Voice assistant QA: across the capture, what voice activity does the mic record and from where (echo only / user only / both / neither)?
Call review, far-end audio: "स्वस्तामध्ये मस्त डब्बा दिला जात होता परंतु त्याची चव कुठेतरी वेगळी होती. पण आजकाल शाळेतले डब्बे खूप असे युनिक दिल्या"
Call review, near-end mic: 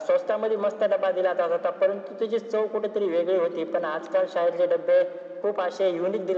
echo only